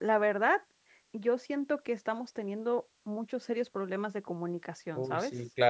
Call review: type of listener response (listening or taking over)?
taking over